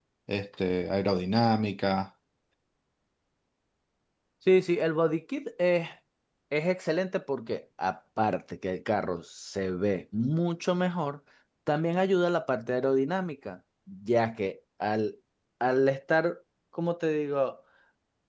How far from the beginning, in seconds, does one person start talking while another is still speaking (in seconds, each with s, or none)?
none